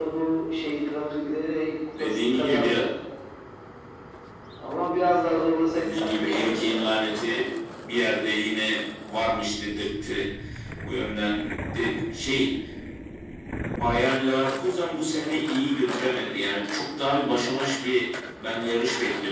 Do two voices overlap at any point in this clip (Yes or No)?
Yes